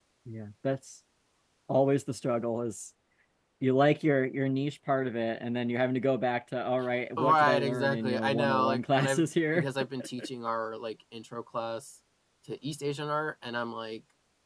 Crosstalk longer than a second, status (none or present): present